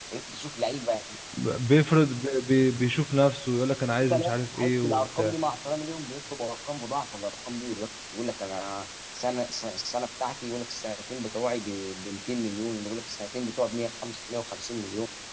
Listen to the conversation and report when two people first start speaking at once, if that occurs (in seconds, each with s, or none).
4.0 s